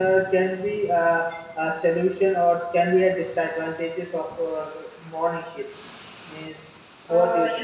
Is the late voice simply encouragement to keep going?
No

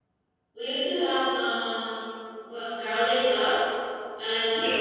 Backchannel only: No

